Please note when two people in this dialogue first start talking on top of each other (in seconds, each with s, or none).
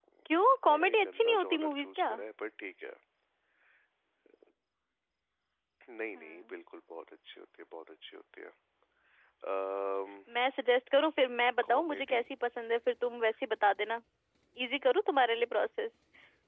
0.7 s